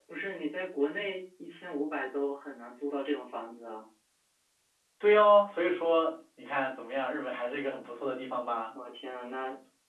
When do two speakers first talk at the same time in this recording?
none

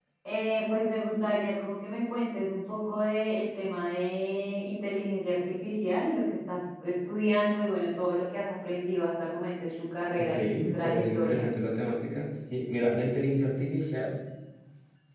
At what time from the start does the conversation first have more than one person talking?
10.2 s

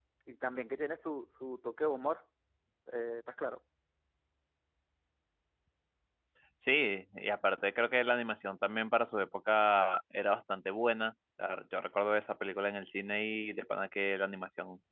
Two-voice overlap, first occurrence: none

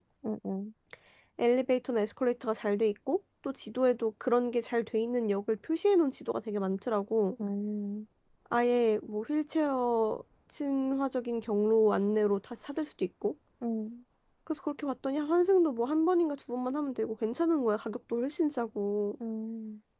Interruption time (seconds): none

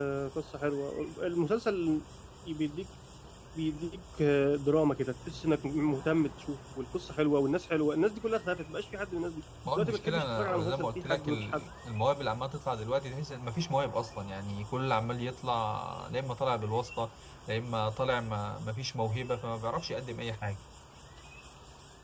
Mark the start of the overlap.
9.6 s

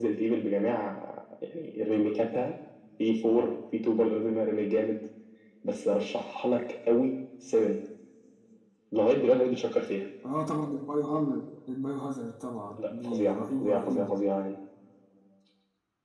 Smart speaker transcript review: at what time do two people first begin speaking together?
12.8 s

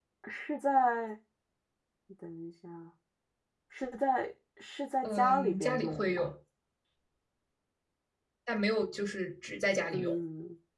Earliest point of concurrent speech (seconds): 5.0 s

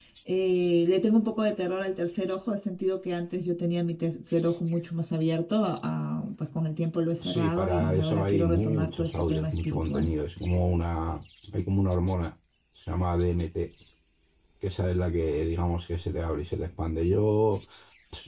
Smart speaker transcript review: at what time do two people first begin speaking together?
7.2 s

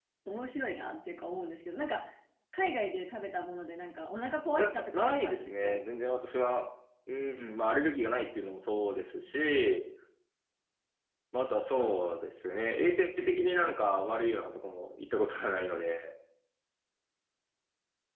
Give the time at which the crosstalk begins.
4.6 s

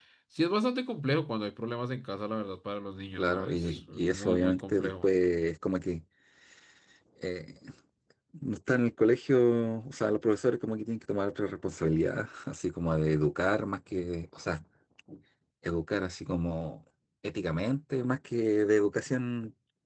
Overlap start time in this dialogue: 3.2 s

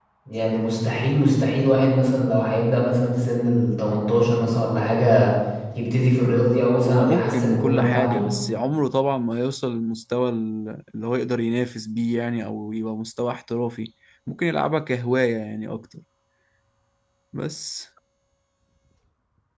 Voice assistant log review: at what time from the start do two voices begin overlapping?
6.8 s

